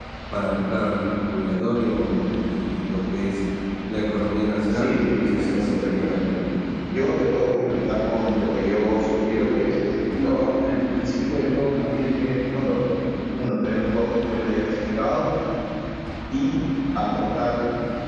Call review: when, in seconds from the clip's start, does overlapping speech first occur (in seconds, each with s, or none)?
4.7 s